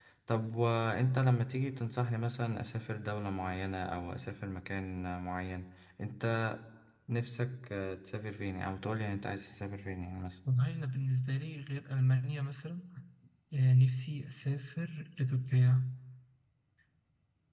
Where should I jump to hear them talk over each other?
none

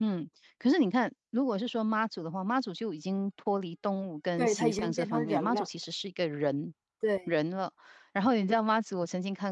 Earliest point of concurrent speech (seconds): 4.4 s

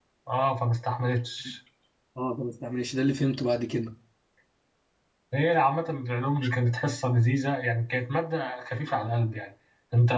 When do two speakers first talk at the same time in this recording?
none

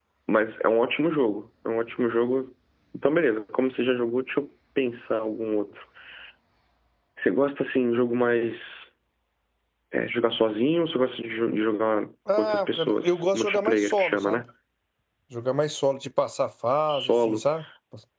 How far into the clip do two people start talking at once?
12.4 s

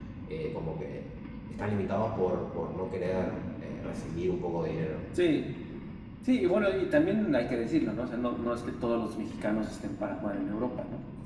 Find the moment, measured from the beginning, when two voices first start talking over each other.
none

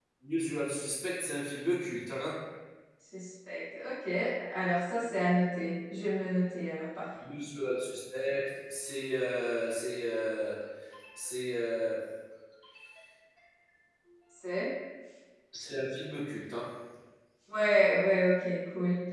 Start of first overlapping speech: none

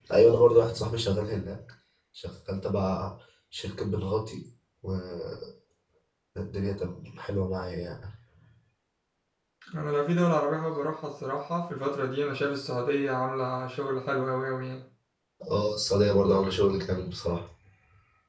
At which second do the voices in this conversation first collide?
none

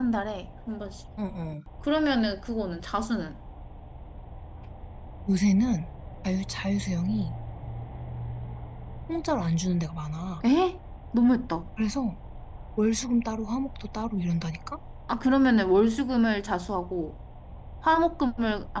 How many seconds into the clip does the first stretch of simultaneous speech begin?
none

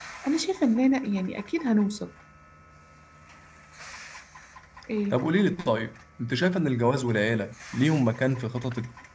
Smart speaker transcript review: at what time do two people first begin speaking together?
none

